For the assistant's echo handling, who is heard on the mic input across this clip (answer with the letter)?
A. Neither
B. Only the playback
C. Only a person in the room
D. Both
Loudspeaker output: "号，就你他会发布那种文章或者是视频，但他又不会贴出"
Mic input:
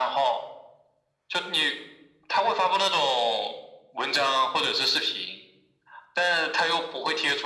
B